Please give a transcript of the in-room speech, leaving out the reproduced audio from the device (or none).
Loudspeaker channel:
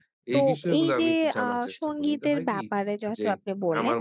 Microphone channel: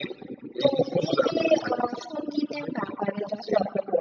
none